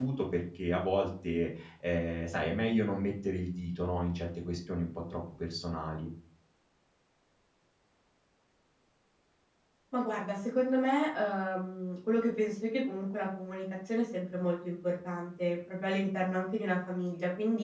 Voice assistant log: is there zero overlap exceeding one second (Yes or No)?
Yes